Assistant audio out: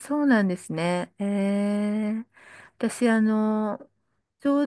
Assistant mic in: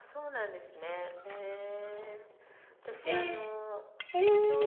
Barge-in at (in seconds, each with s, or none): 3.0 s